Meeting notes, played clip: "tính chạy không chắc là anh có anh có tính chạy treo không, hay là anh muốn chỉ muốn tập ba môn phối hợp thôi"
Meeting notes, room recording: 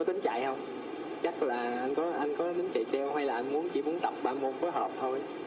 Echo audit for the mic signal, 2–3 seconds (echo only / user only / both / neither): echo only